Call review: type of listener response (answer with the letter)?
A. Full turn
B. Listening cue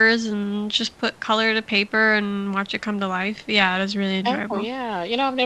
A